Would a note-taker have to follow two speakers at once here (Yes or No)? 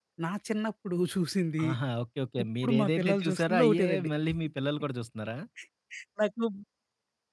Yes